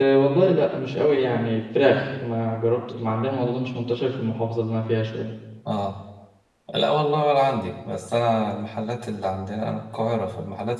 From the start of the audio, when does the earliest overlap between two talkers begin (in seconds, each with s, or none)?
none